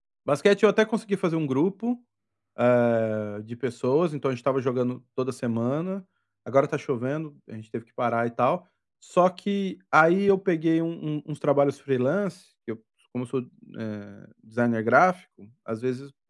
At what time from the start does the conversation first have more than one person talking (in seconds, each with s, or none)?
none